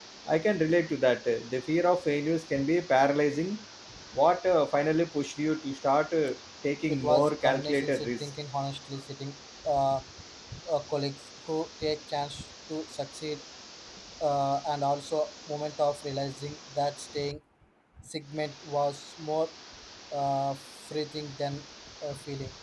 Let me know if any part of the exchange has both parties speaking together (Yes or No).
Yes